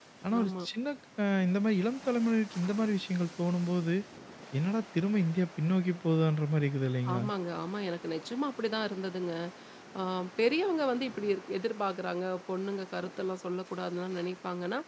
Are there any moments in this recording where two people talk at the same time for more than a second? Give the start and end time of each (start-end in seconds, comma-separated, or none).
none